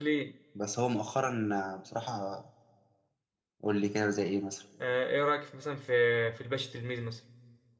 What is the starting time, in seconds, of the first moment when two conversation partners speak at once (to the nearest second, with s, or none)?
none